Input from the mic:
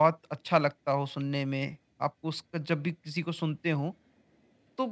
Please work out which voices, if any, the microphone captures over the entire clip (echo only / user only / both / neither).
user only